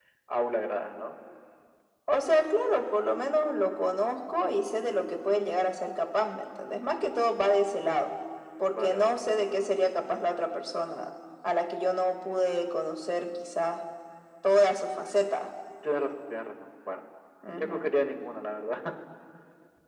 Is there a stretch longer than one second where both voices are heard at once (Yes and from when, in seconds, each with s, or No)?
No